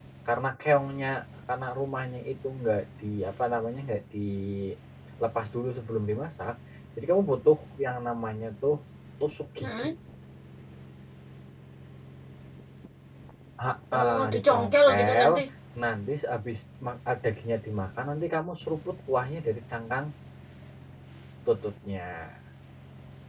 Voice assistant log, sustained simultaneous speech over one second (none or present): present